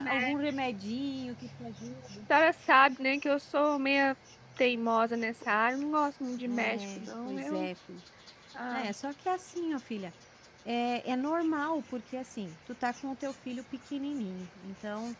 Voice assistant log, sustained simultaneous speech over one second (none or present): present